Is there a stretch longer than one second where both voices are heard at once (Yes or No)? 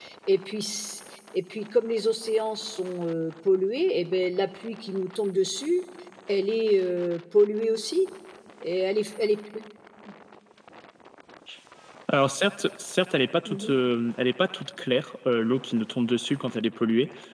No